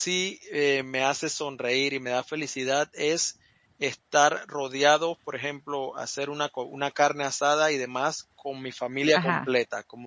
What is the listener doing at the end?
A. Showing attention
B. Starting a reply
A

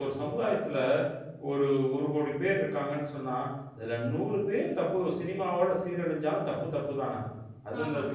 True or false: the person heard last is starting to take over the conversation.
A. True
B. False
A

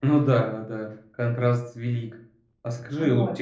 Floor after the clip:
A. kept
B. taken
A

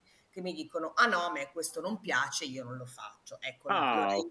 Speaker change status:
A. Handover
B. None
A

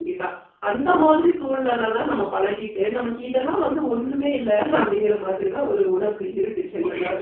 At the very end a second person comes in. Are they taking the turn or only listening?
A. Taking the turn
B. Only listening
A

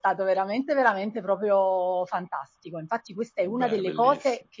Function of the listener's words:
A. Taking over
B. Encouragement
B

